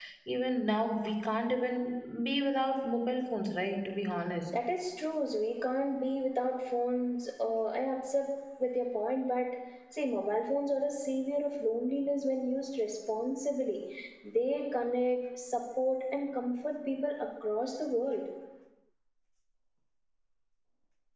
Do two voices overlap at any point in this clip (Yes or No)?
No